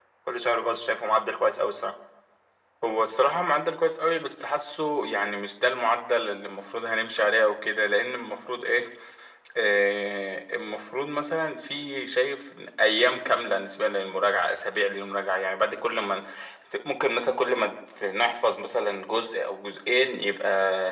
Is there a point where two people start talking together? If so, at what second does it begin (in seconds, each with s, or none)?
none